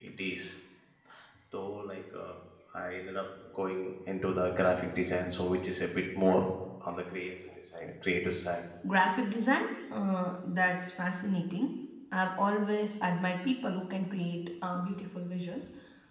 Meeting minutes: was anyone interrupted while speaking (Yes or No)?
No